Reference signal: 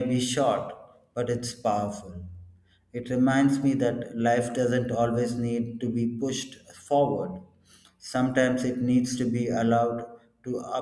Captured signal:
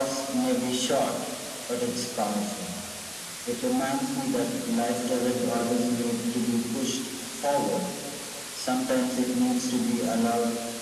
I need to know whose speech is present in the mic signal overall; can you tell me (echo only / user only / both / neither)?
echo only